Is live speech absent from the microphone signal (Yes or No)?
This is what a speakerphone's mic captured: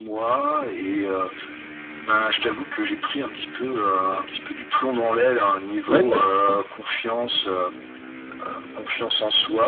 No